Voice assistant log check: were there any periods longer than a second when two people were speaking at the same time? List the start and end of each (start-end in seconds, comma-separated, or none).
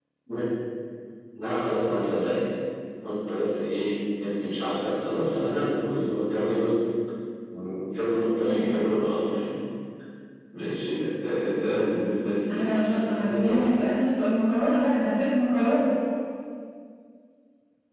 12.5-13.8